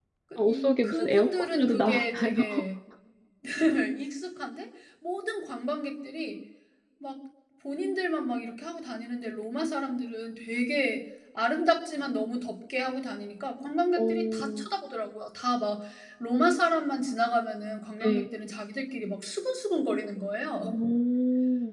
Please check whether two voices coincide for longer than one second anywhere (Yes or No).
Yes